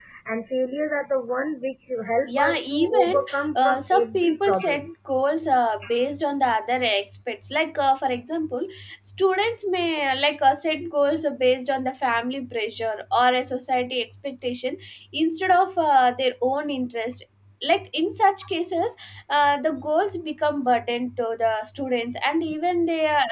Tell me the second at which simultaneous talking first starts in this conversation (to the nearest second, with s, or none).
2 s